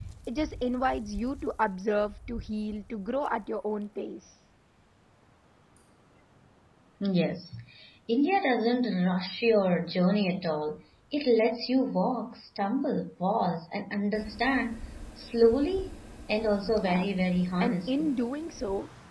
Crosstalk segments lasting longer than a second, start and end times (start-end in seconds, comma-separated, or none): none